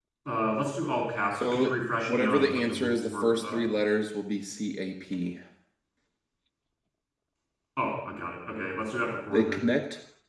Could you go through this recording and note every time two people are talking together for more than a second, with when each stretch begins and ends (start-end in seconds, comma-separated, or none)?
1.3-3.6